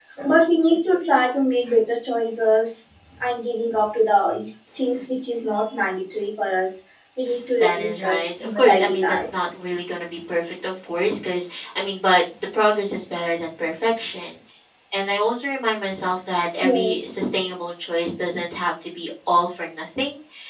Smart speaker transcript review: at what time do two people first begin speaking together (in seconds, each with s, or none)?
7.6 s